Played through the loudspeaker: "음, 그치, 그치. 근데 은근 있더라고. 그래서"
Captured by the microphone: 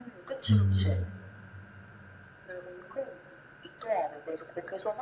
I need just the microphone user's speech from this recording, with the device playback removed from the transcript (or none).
음,